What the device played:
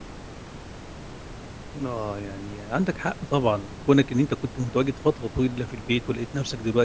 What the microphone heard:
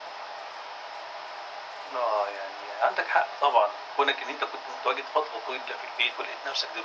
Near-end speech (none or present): none